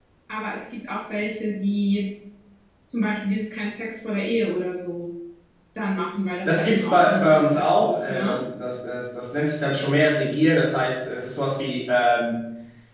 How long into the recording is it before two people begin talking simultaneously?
6.5 s

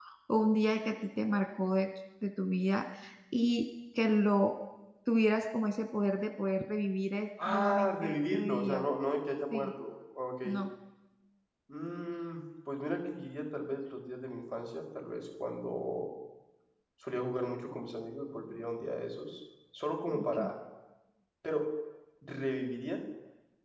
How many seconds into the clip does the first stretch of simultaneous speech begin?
7.5 s

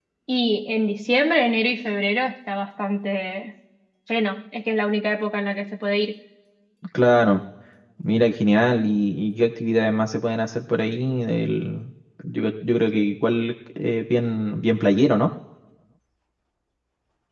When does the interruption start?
none

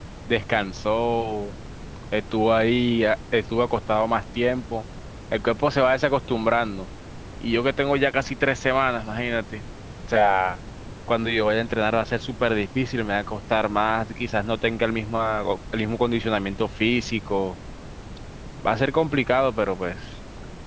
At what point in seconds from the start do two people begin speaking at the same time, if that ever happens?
none

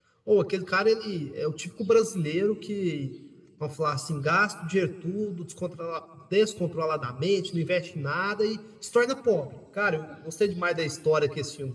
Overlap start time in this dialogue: none

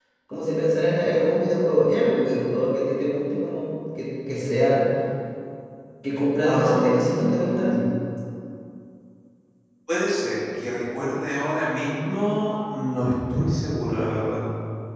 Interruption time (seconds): 6.4 s

